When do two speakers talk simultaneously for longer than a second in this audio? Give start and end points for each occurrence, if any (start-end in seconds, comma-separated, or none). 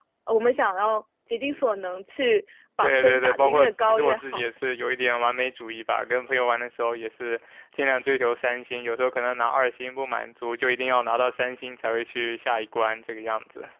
2.8-4.5